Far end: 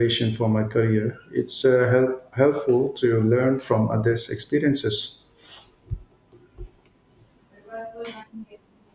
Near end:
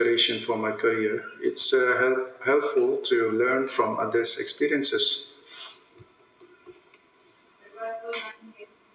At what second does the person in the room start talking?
none

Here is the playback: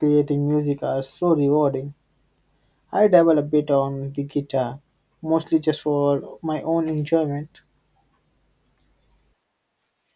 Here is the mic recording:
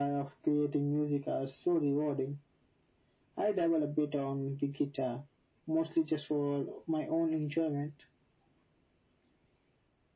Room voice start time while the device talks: none

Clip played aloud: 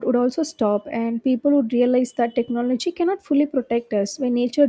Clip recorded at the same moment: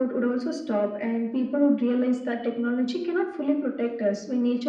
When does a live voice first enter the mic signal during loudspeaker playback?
none

